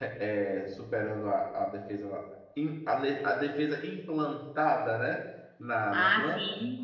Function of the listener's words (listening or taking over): taking over